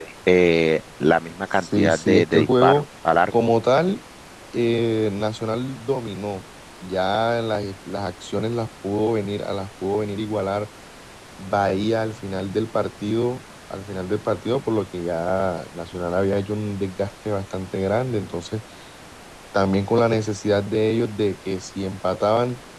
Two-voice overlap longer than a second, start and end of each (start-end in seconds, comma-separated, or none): 1.6-2.8